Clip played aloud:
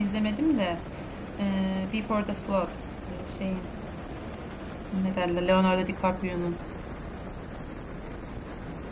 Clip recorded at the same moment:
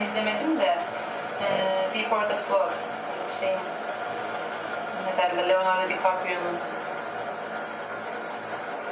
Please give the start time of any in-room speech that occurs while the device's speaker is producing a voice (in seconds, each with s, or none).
1.4 s